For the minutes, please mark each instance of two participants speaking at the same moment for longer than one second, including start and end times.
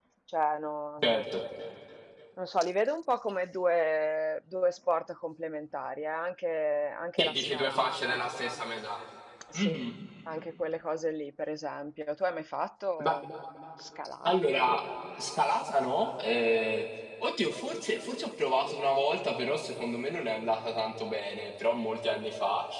7.2-8.6

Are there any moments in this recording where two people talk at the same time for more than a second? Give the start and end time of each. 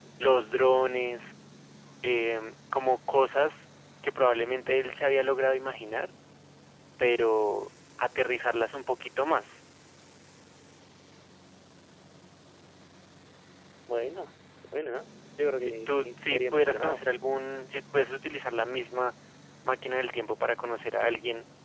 15.6-17.0

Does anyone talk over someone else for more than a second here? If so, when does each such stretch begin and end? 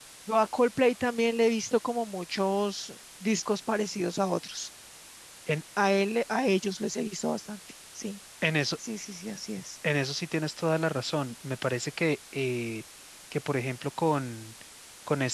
none

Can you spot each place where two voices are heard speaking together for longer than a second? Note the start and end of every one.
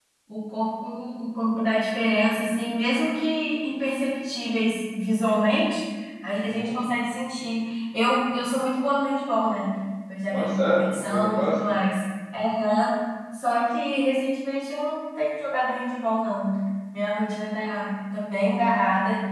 10.3-11.6

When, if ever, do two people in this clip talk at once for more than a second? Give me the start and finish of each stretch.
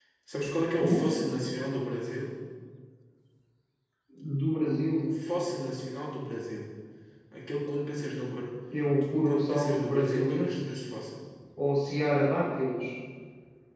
9.1-10.8

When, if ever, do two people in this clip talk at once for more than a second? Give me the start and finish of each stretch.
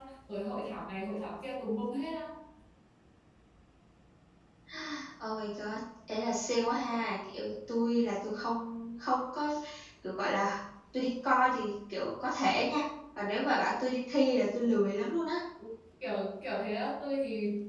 none

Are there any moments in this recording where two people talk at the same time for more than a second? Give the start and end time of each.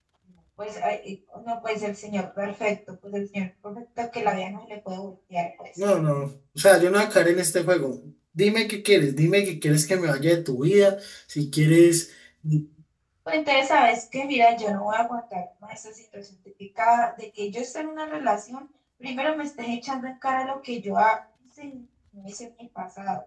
none

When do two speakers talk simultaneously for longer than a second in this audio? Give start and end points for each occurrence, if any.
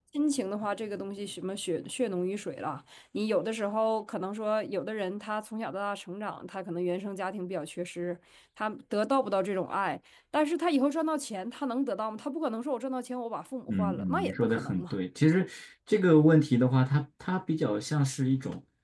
13.7-14.9

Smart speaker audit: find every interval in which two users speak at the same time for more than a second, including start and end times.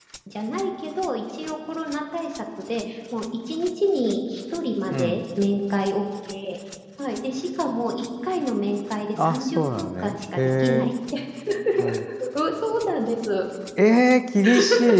9.2-10.9

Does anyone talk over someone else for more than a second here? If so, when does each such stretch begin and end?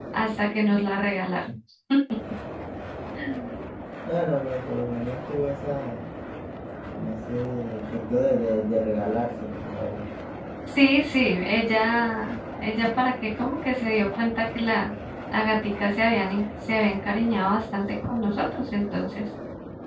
none

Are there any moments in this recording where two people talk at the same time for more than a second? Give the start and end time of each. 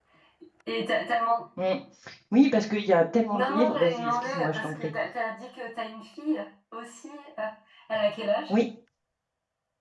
3.3-4.9

